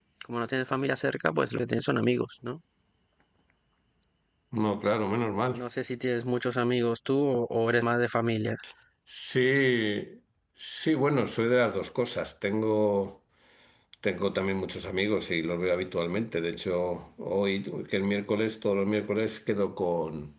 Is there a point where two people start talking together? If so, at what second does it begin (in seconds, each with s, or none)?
none